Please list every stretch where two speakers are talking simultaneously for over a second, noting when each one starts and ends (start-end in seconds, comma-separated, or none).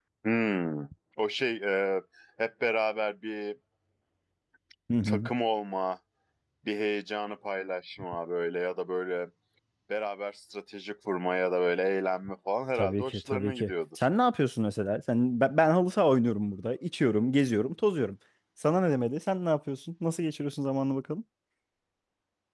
12.8-14.1